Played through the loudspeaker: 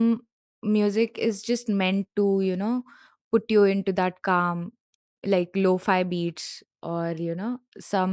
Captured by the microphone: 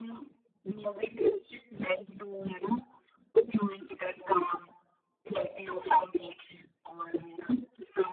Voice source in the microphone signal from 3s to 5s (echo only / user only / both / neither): echo only